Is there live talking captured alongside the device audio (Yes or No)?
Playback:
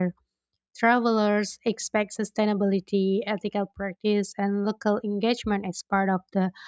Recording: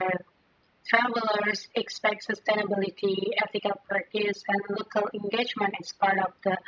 No